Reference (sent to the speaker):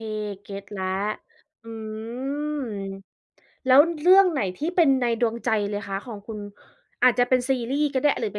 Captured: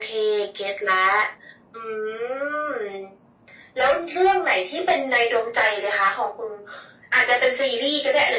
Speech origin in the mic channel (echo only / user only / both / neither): echo only